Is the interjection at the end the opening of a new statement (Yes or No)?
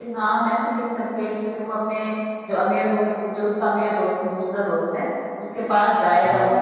No